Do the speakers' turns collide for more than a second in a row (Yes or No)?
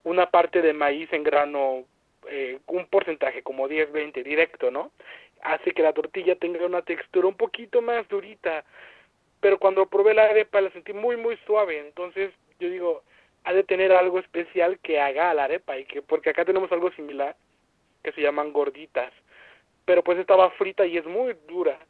No